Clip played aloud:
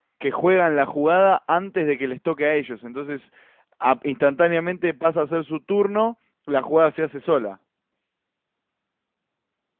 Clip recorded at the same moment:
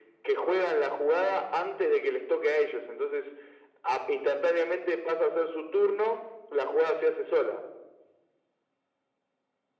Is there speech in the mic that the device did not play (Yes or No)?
No